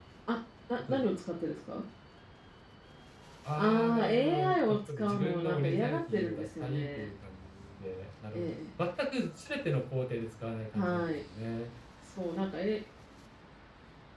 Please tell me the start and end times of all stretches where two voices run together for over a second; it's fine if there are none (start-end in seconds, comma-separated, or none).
3.5-7.1